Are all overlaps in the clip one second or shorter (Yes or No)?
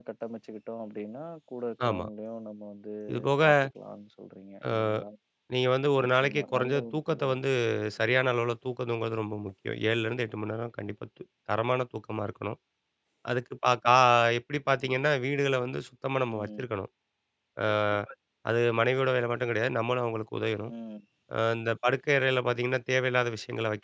No